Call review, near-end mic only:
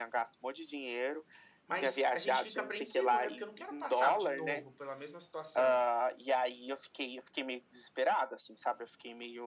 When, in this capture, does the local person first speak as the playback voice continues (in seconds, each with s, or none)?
1.7 s